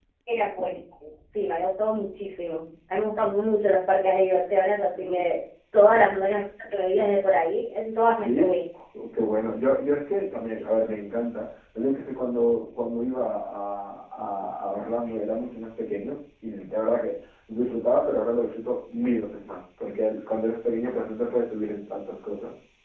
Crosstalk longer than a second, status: none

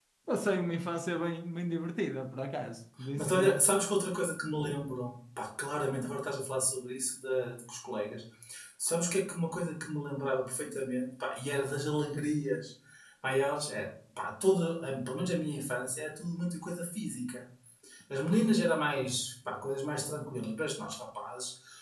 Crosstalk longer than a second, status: none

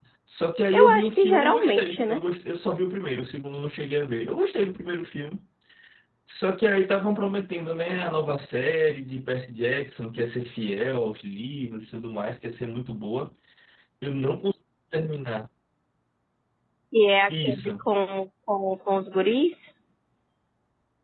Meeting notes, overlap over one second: present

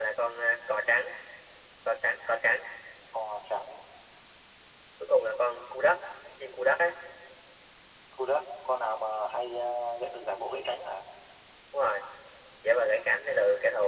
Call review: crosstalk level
none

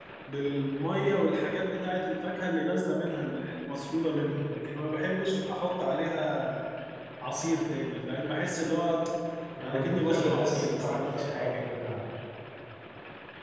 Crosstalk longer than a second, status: present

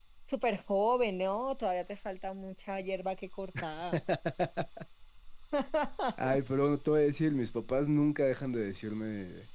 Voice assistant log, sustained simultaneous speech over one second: none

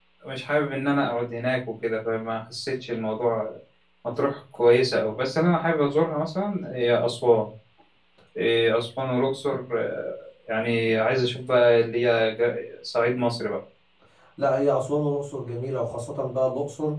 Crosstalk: none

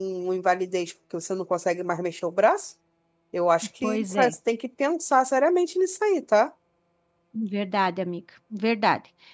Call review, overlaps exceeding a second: none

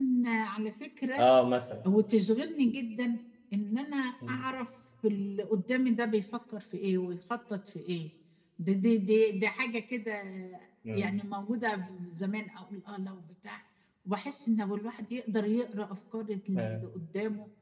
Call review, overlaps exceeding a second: none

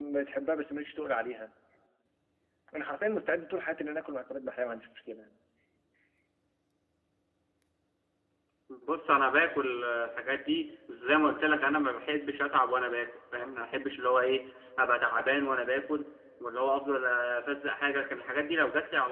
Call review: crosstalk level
none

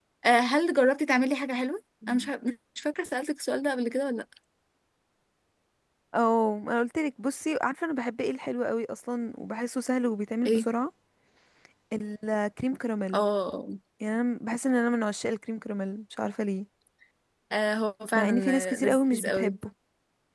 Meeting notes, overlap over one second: present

